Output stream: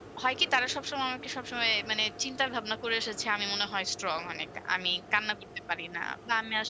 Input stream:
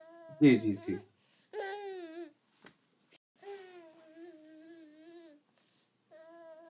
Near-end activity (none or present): present